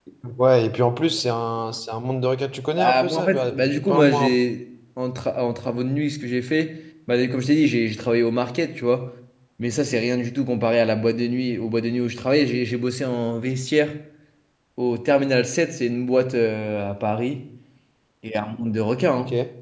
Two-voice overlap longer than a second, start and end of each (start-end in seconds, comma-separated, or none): 2.8-4.3